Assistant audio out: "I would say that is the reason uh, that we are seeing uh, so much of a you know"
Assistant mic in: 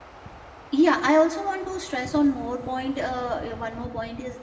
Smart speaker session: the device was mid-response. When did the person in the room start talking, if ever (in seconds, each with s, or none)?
0.7 s